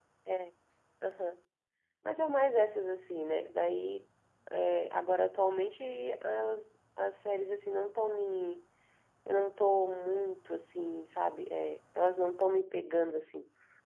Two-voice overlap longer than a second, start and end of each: none

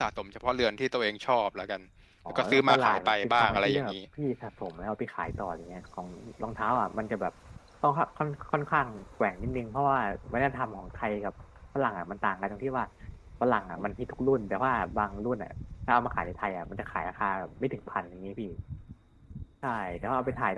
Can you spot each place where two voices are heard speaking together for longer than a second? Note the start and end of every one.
2.3-3.9

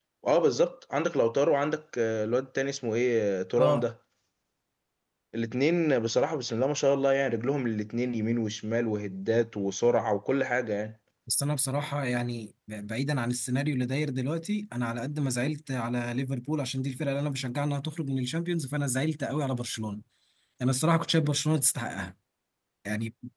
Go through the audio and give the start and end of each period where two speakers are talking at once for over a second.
none

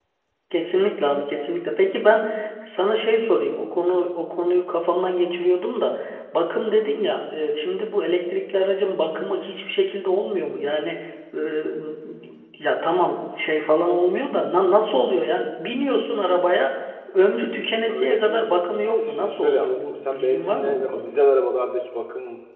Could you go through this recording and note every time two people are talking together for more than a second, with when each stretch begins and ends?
17.9-21.2

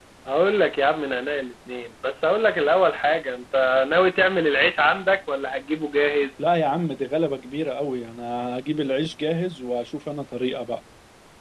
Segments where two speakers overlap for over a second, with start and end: none

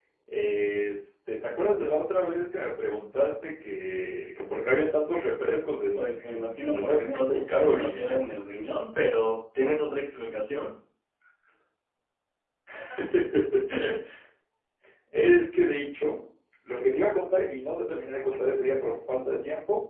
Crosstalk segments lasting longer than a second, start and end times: 5.9-8.2

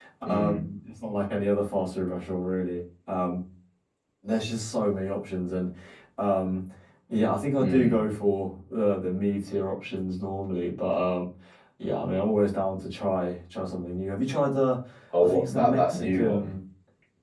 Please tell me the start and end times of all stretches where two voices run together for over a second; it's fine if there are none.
15.2-16.5

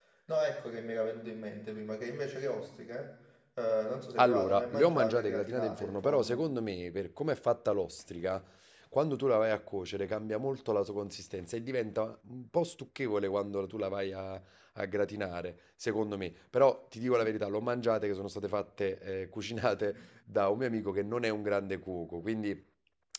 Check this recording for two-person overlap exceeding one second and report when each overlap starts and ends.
4.2-6.4

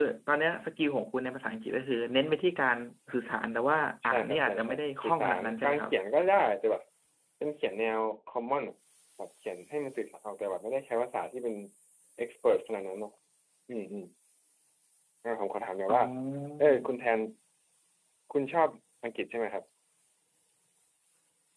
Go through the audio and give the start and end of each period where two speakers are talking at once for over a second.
4.0-5.9

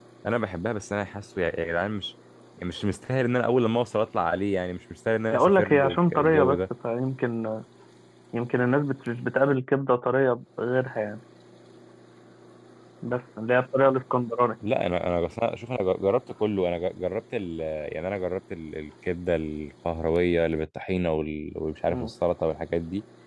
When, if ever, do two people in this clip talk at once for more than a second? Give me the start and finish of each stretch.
5.3-6.6

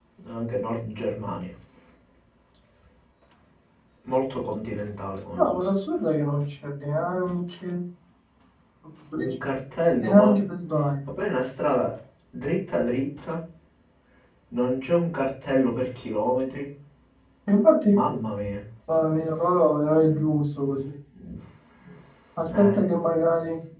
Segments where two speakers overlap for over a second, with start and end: none

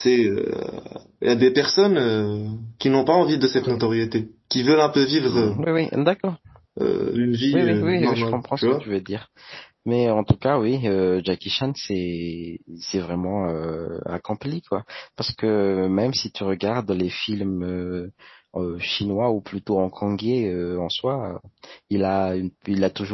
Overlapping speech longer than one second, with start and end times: 7.5-8.8

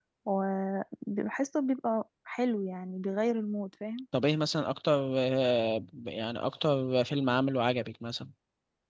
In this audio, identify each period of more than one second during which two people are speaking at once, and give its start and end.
none

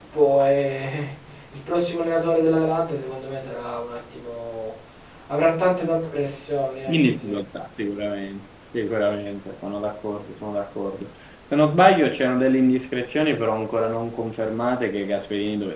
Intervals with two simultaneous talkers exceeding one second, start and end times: none

